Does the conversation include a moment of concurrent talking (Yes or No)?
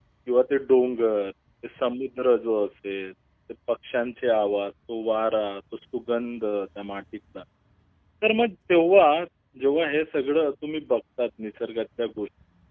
No